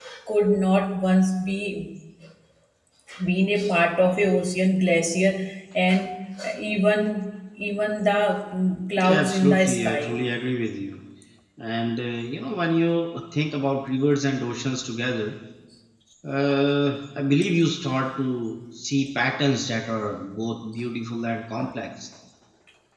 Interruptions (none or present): present